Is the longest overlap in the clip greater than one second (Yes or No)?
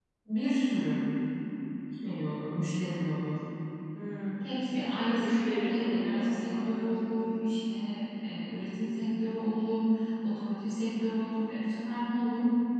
Yes